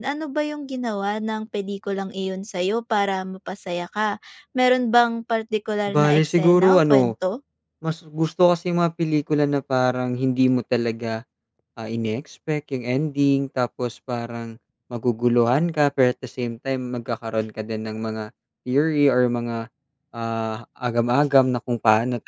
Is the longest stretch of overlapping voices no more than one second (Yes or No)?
No